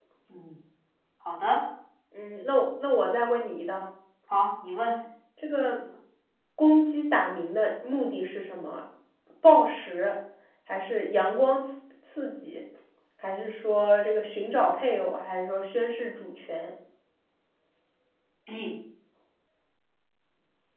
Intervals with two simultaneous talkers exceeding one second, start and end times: none

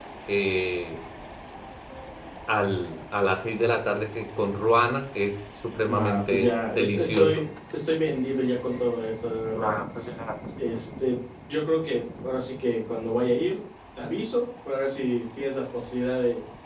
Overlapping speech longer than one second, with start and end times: 5.9-7.5

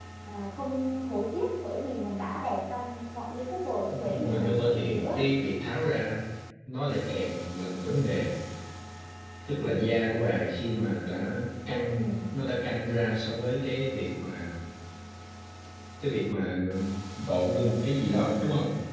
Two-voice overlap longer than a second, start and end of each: 3.9-5.2

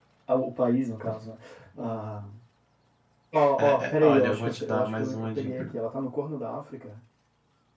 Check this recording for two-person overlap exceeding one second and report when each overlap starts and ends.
3.6-5.7

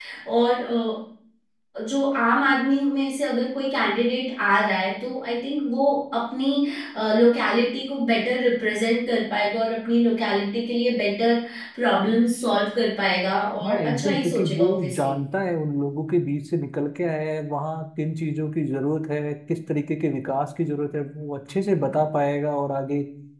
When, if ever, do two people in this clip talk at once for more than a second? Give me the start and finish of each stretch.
13.7-15.2

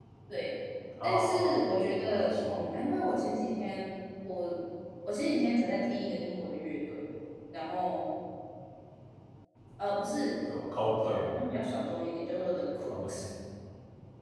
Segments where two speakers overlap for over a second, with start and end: 1.0-2.7

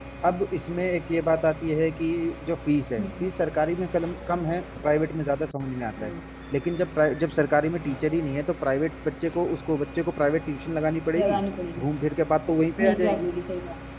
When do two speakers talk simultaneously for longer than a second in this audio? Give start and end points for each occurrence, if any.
none

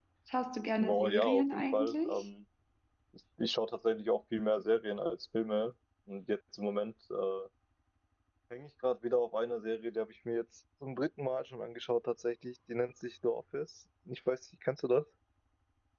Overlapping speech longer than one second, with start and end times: 0.8-2.2

